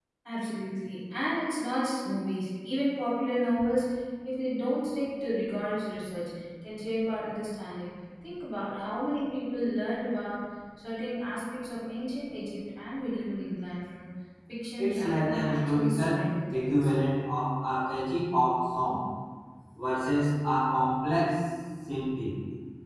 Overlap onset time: 15 s

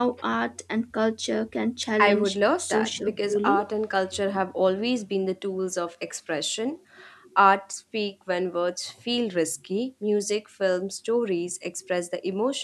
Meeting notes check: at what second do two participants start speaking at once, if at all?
2 s

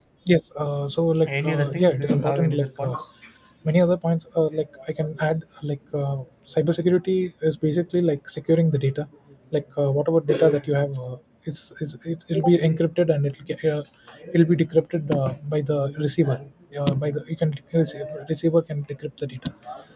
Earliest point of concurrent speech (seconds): 1 s

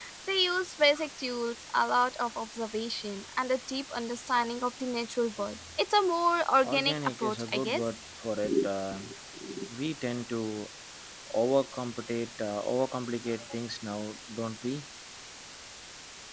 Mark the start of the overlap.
7 s

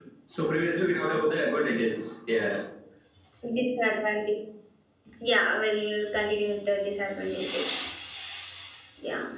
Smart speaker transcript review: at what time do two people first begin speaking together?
none

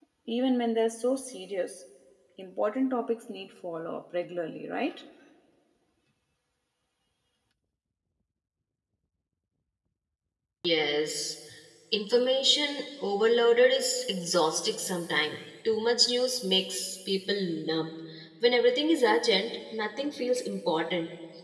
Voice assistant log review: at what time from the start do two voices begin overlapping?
none

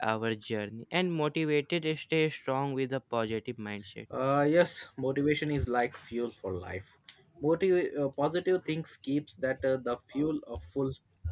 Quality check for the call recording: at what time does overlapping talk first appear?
none

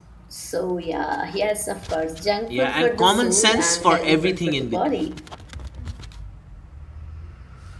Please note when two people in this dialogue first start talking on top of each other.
3 s

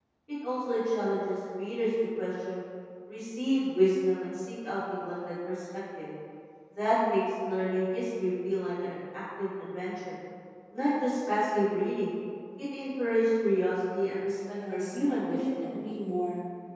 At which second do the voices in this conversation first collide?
14 s

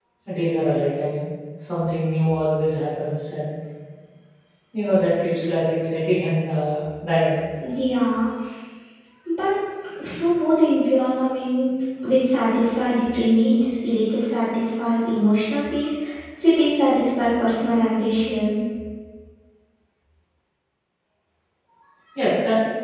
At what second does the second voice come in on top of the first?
none

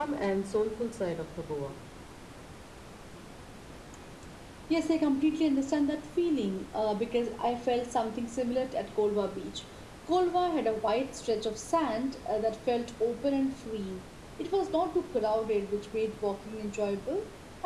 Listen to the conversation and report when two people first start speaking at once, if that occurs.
none

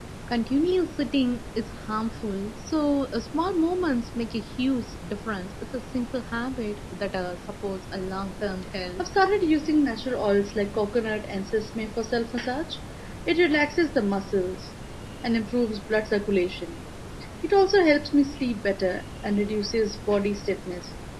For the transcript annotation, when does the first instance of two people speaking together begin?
none

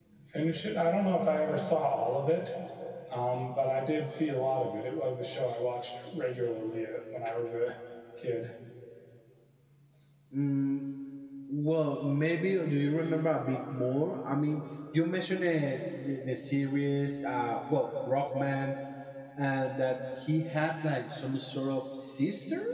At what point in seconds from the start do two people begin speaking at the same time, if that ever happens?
none

